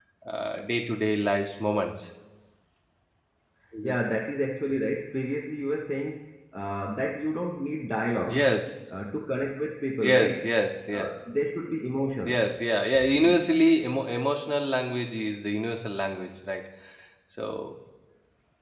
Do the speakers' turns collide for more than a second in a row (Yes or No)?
No